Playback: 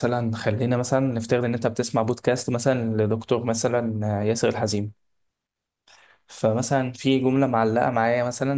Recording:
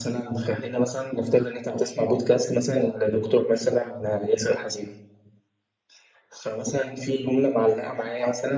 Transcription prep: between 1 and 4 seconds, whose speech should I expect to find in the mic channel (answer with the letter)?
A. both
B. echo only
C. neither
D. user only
B